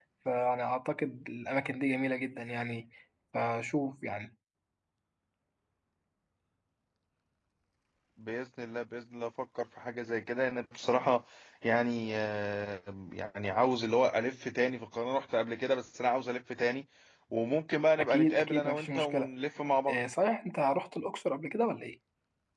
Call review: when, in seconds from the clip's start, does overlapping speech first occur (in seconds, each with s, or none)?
18.0 s